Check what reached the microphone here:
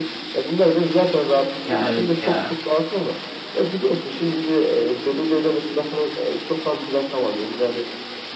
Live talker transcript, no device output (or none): Ya evet ya.